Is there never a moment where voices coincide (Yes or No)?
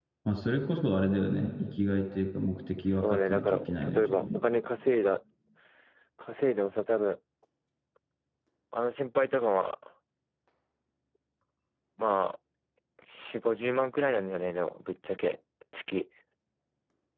No